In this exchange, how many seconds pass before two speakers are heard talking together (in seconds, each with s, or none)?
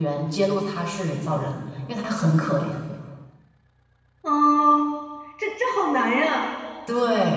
none